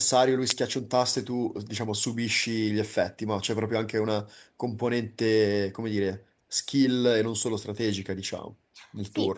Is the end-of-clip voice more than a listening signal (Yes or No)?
Yes